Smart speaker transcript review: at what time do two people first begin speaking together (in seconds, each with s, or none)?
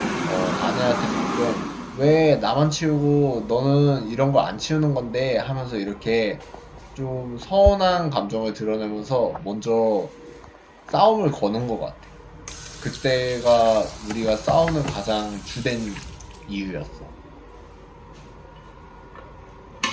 none